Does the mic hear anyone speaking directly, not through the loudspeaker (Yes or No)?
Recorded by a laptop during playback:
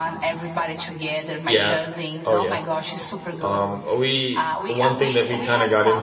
Yes